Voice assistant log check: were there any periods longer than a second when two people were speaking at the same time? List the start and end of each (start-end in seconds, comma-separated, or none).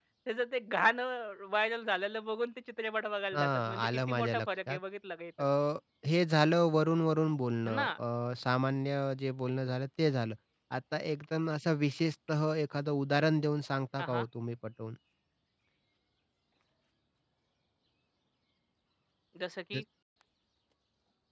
3.3-4.8